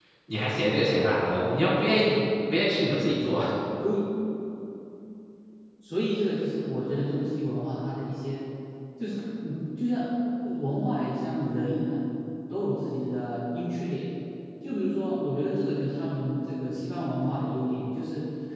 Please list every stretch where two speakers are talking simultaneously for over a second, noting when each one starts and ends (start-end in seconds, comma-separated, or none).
none